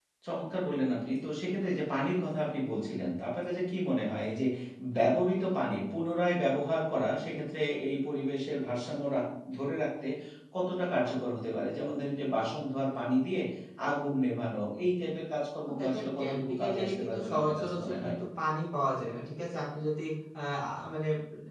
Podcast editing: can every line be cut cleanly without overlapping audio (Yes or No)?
No